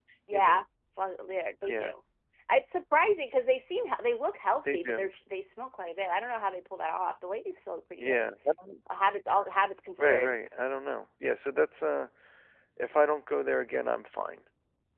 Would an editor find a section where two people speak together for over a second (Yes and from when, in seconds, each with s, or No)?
No